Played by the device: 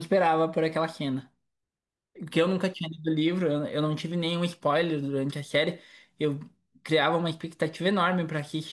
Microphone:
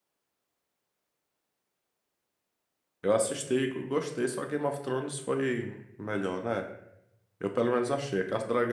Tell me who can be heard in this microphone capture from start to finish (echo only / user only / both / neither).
user only